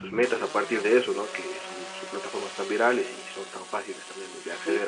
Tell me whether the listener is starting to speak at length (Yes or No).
Yes